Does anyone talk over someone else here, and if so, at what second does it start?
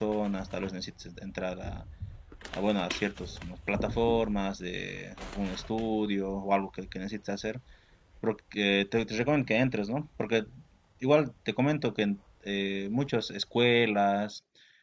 none

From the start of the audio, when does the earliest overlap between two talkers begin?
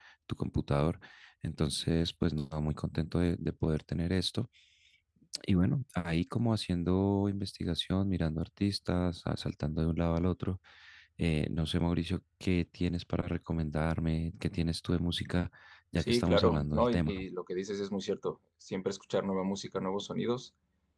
16.0 s

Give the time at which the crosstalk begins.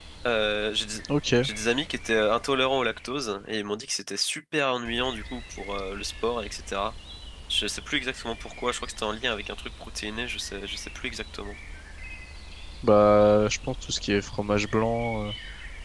none

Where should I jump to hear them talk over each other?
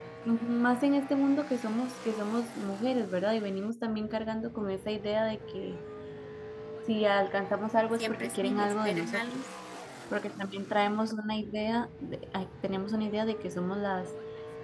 7.9 s

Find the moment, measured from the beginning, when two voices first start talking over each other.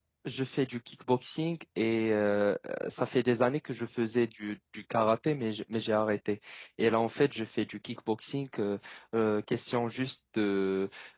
none

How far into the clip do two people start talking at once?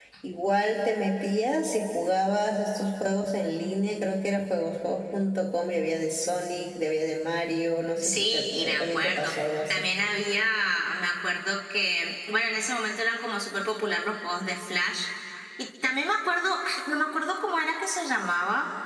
8.0 s

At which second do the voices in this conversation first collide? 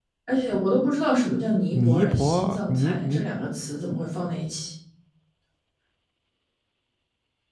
1.7 s

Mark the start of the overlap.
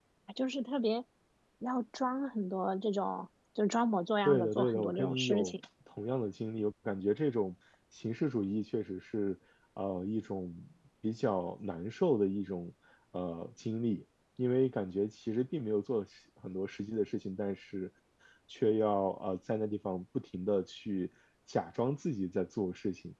4.2 s

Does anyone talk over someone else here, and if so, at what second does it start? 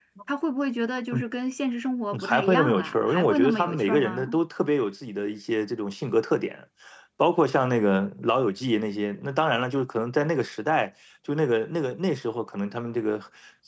2.1 s

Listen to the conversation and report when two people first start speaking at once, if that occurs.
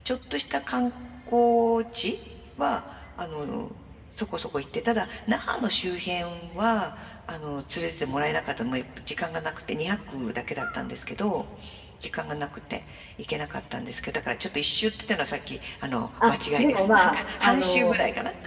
16.2 s

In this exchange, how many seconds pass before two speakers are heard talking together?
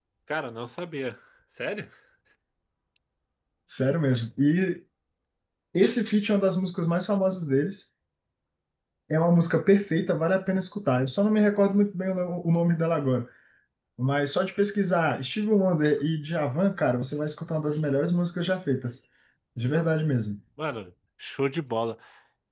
none

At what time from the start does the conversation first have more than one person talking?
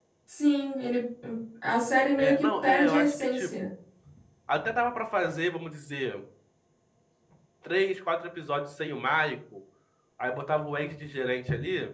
2.2 s

